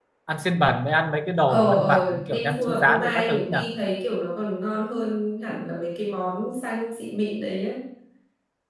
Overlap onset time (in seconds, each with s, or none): 1.5 s